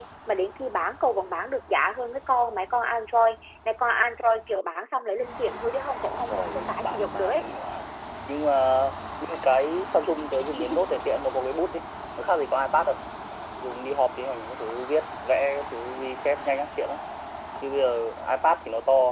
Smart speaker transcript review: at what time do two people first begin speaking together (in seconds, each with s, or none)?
6.2 s